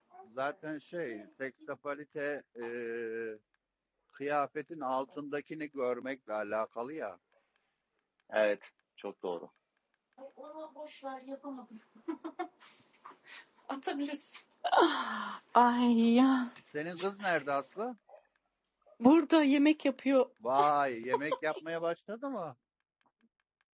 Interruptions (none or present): none